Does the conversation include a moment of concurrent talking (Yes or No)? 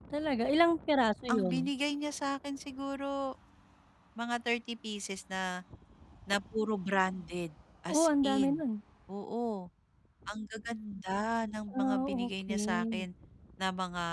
Yes